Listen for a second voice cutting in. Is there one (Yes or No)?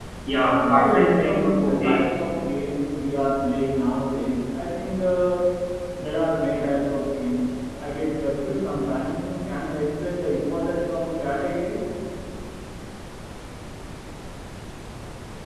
Yes